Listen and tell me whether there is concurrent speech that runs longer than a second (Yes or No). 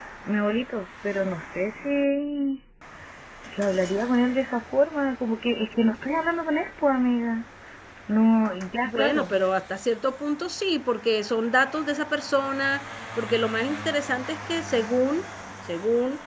No